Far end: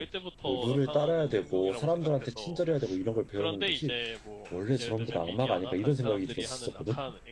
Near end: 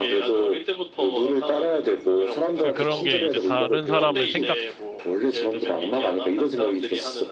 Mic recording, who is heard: both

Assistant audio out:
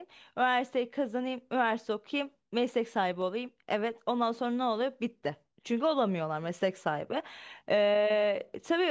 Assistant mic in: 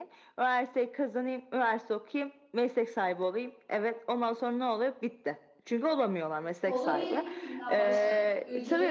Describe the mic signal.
both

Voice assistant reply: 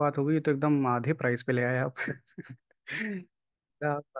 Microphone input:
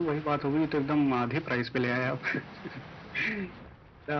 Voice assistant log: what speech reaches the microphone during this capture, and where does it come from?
echo only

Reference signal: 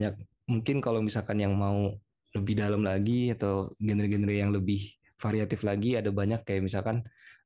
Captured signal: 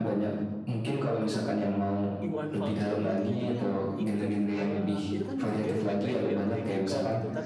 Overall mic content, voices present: both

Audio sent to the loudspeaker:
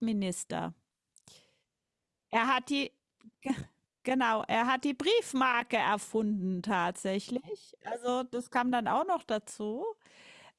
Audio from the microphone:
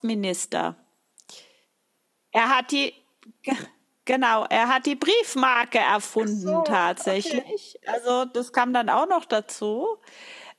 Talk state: both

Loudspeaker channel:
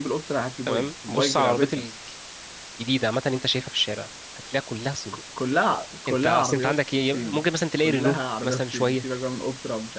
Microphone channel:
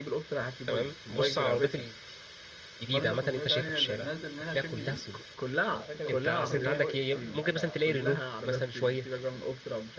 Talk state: both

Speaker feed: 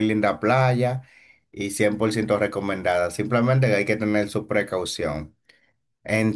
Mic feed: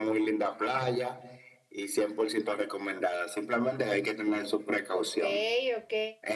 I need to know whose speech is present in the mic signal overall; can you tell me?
both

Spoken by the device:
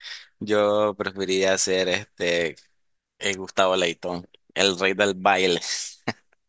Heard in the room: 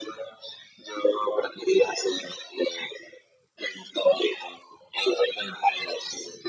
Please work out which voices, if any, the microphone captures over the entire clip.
echo only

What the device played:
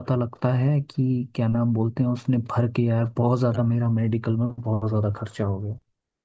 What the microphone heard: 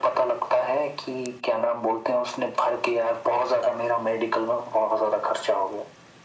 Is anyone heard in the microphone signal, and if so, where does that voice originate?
echo only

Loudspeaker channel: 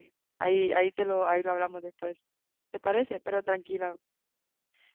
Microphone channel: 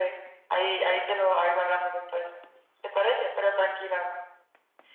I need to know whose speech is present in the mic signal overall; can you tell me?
echo only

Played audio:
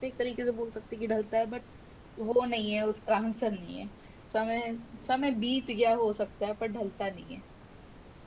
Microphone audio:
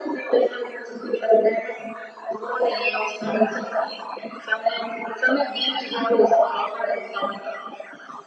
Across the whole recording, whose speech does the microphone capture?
echo only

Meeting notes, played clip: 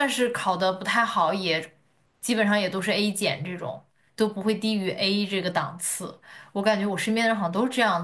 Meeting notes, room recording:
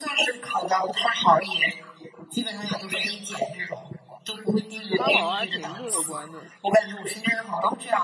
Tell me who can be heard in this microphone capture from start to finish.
both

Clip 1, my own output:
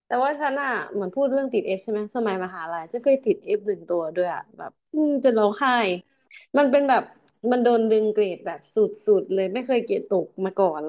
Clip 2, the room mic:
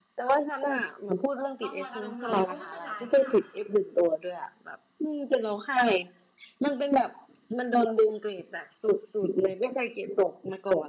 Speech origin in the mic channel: both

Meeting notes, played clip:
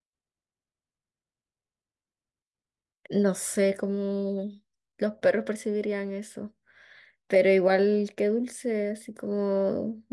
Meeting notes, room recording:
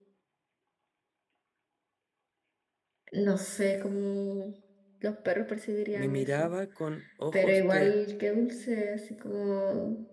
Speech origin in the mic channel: both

